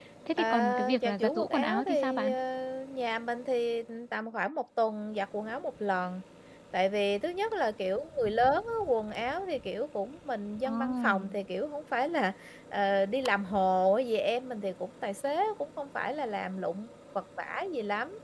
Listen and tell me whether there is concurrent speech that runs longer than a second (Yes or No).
Yes